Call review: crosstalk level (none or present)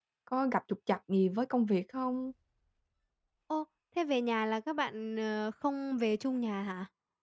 none